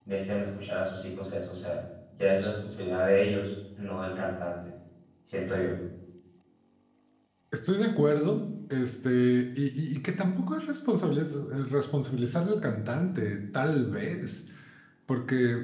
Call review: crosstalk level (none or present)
none